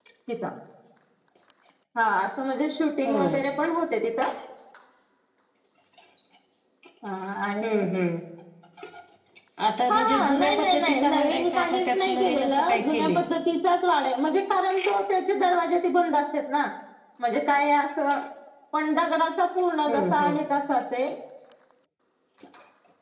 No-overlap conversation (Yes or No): No